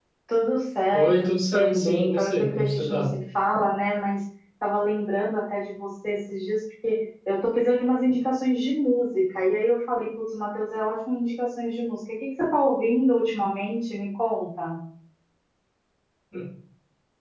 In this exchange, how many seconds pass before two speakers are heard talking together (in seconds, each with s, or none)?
0.9 s